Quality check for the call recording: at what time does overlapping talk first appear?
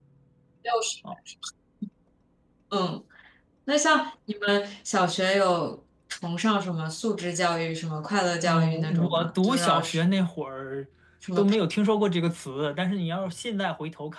8.4 s

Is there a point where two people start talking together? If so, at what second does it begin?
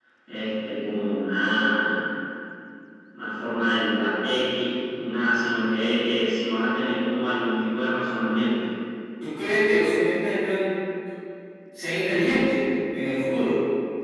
none

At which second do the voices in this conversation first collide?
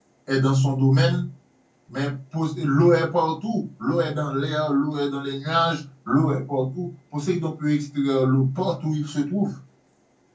none

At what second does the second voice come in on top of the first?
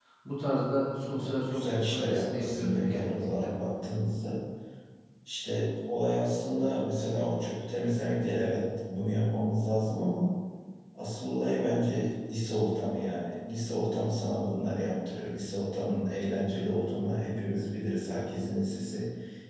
1.2 s

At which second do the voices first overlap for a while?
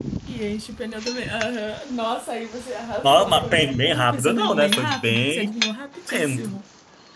3.0 s

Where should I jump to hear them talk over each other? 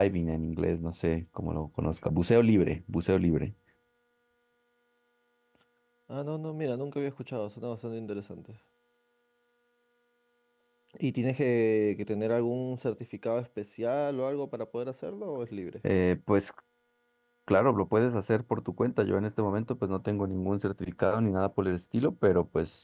none

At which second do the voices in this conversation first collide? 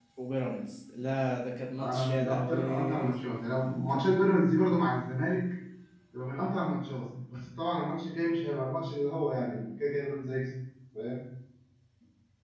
1.8 s

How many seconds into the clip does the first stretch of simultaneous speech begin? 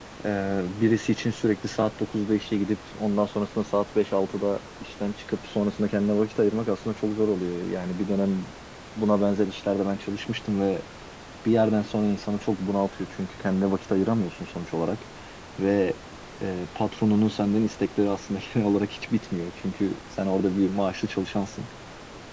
none

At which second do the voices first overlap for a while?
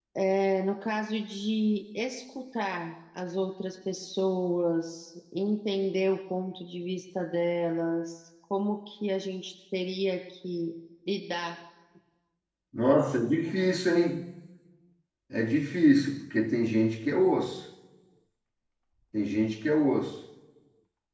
none

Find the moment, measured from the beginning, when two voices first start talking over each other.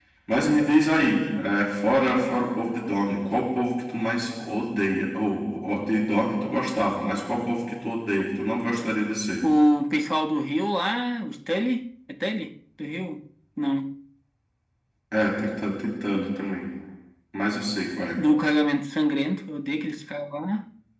none

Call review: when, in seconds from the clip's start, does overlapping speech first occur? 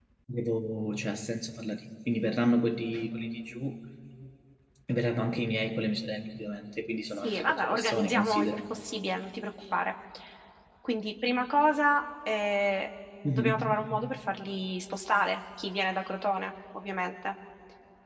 7.2 s

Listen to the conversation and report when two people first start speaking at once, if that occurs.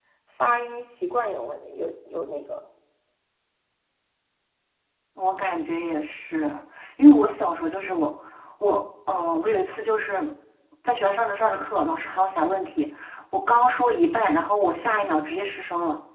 none

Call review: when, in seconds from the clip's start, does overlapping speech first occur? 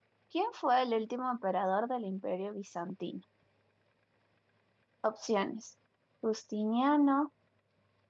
none

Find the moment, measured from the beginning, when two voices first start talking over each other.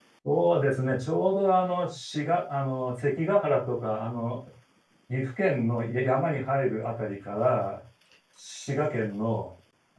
none

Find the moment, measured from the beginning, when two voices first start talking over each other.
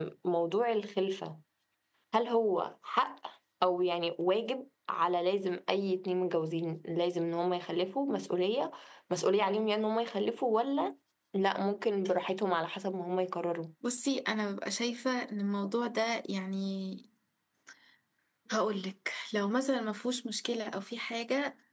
none

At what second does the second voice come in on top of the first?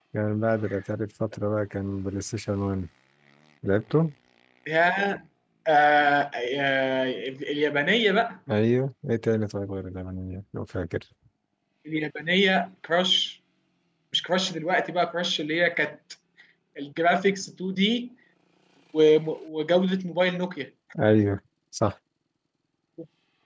none

